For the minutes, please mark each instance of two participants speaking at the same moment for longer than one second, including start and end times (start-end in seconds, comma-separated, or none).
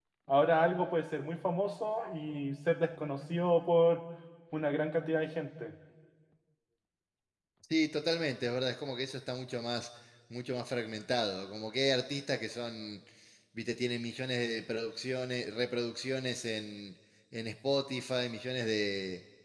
none